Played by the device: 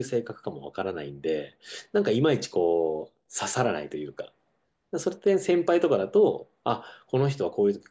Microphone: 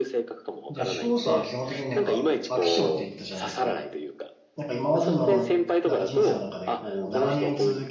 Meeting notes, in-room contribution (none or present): present